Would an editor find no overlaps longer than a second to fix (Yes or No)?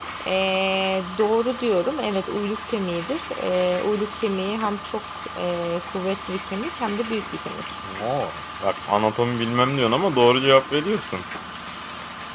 Yes